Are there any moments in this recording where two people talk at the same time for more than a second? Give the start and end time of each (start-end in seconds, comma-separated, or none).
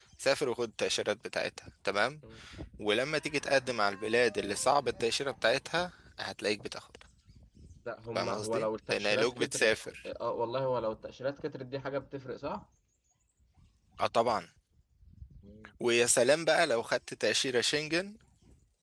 8.2-9.7